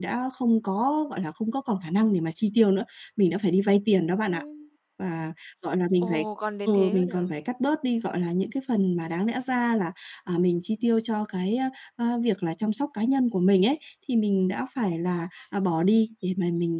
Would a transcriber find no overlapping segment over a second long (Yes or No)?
Yes